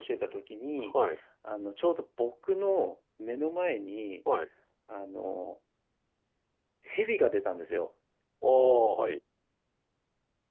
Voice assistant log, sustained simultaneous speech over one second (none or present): none